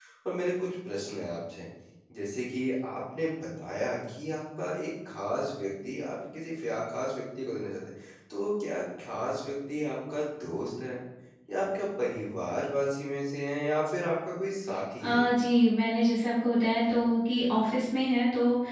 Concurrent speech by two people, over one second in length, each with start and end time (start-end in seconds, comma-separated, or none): none